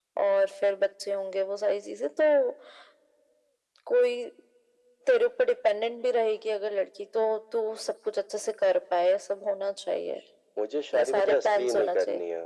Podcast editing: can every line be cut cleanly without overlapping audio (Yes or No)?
No